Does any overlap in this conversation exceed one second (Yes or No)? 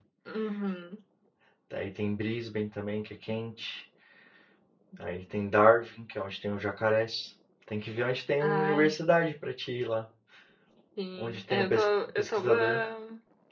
Yes